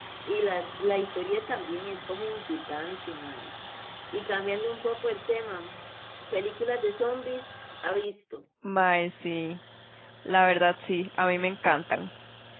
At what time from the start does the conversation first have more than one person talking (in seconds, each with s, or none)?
none